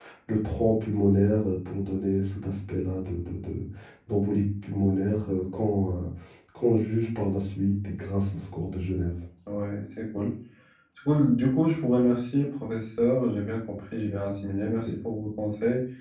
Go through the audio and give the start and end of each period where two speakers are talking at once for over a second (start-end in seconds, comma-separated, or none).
none